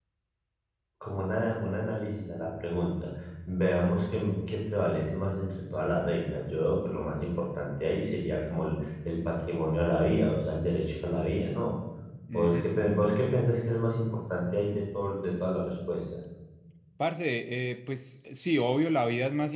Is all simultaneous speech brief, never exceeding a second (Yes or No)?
Yes